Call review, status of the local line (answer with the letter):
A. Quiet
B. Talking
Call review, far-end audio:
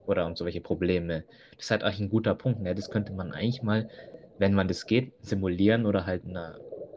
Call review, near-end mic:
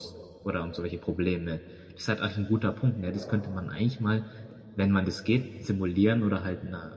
B